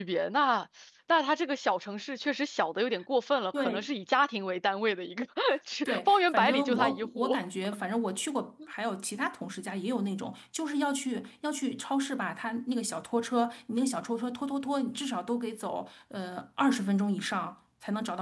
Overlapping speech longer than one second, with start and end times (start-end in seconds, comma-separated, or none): 5.8-7.4